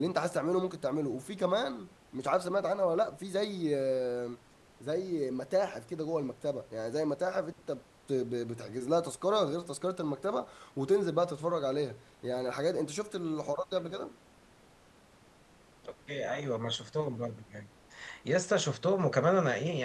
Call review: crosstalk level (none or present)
none